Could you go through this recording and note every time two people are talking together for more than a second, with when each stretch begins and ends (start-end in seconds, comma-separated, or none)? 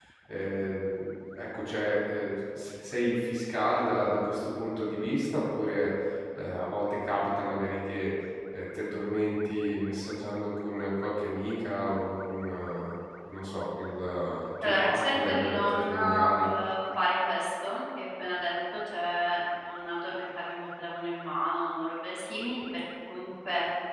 14.6-16.5